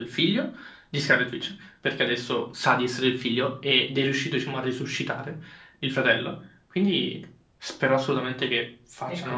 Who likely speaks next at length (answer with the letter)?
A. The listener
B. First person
A